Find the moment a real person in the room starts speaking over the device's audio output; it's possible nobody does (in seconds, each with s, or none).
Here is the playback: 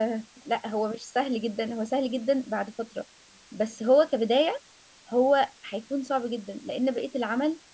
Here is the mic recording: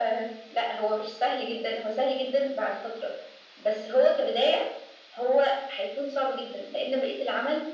none